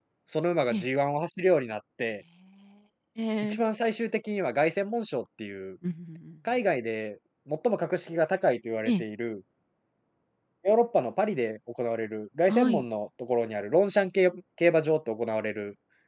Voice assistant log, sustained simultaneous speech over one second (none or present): none